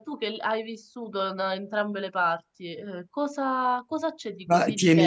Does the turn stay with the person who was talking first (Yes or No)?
No